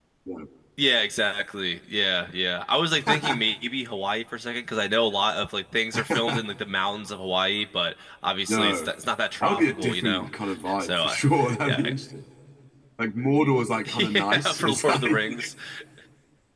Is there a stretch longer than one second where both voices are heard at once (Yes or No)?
Yes